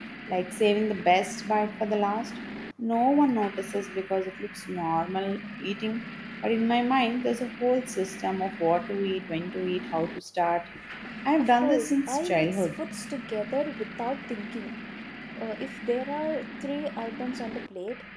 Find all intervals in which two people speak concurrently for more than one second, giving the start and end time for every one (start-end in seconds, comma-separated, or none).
11.4-12.8